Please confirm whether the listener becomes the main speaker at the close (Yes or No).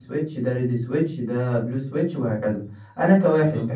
No